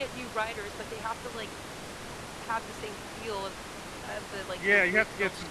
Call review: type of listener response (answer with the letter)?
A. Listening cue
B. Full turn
B